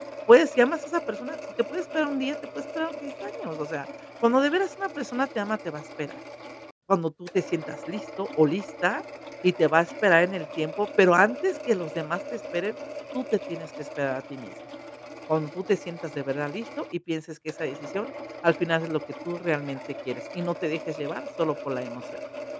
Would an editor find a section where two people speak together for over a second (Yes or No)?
No